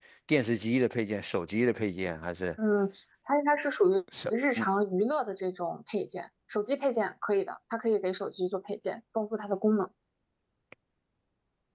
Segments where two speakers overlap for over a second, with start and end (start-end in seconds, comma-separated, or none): none